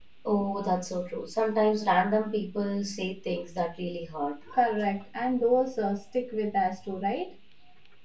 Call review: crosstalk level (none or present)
none